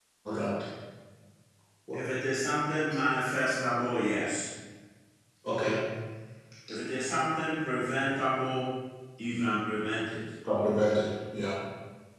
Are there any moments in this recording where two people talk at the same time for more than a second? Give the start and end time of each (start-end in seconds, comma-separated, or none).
none